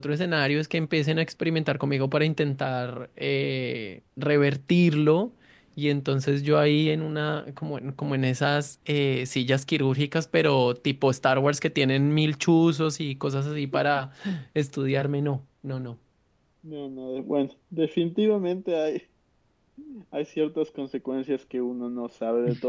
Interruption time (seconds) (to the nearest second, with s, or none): none